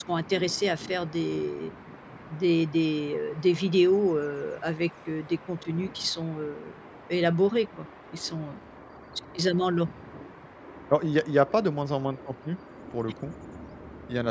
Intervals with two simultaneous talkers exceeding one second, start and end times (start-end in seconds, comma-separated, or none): none